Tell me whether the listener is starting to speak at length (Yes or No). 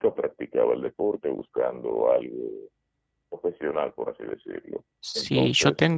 Yes